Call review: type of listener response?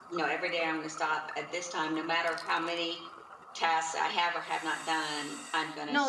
taking over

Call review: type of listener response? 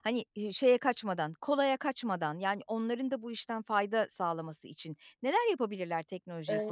taking over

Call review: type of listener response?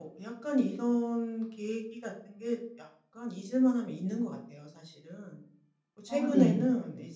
listening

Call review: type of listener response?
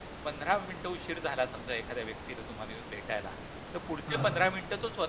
listening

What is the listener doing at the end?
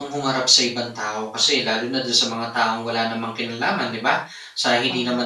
listening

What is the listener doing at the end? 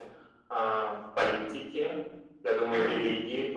listening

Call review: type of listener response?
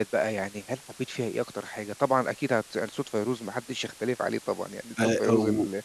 listening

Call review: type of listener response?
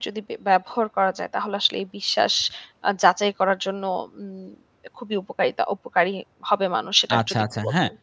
taking over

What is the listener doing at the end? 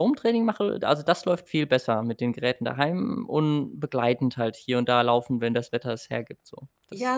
taking over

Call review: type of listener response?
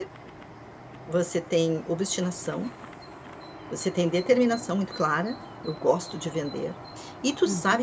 listening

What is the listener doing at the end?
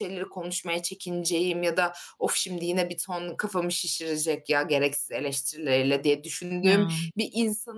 listening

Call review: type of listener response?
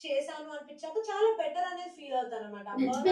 taking over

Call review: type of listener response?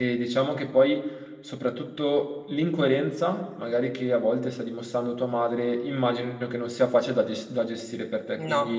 listening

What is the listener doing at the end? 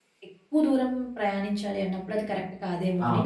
taking over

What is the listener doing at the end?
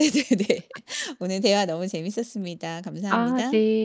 taking over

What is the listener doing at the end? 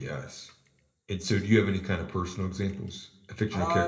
taking over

